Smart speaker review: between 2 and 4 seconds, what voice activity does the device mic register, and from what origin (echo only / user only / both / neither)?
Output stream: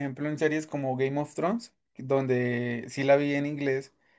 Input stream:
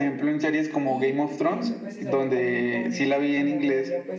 both